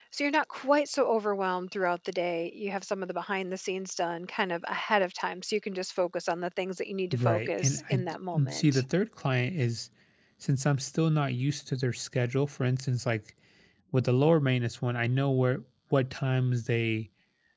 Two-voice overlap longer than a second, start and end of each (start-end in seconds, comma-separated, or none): 7.1-8.8